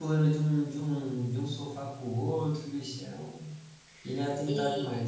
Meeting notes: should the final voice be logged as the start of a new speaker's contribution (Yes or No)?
Yes